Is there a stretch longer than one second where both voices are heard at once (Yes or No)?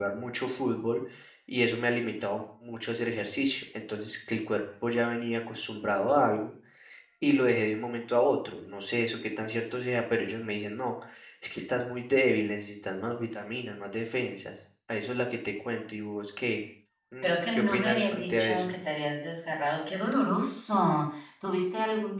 Yes